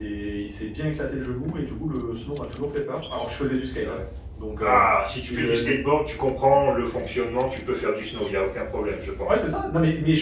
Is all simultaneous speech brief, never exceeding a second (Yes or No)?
Yes